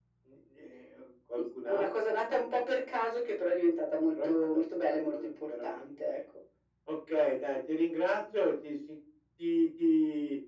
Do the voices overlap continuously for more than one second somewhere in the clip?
Yes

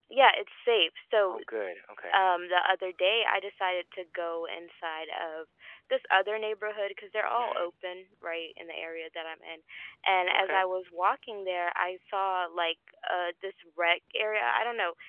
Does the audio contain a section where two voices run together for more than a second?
No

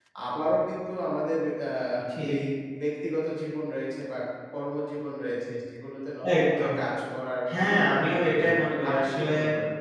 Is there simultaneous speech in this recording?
Yes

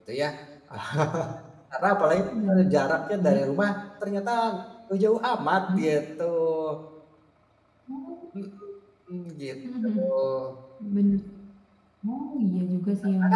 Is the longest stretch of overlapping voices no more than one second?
Yes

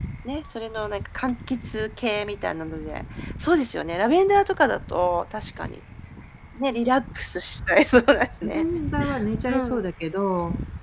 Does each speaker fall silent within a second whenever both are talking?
Yes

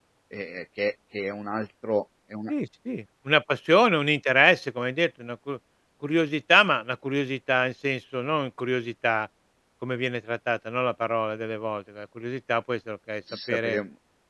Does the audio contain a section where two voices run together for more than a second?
No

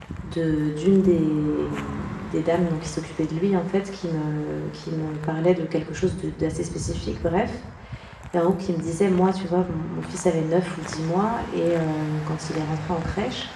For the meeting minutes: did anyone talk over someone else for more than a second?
No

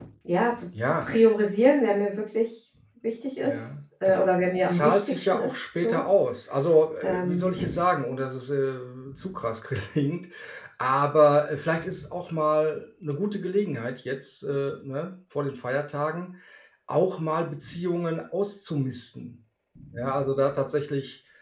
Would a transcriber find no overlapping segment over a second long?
No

